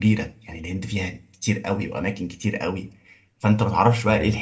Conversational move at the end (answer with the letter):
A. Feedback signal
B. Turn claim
A